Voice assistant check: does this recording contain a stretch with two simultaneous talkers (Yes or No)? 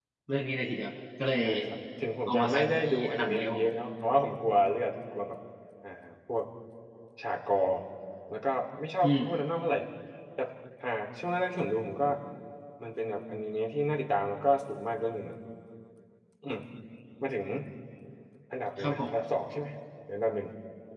Yes